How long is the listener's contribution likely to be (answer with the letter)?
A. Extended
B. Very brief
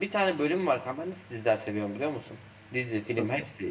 B